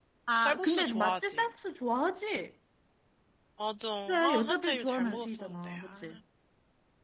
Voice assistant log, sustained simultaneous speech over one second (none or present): present